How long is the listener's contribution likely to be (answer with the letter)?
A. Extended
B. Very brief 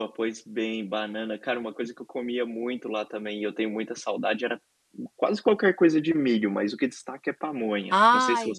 A